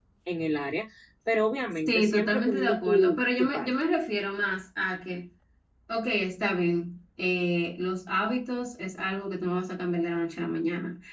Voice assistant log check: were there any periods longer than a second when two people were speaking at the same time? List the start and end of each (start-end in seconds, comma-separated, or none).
1.9-3.7